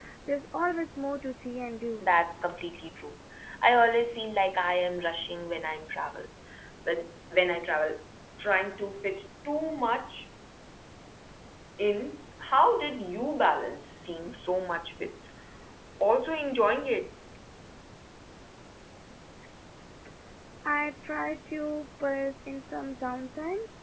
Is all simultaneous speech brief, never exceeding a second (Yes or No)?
Yes